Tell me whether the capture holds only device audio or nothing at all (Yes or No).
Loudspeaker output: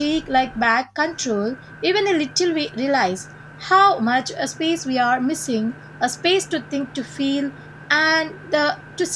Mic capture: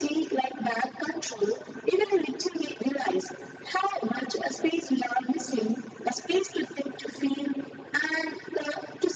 Yes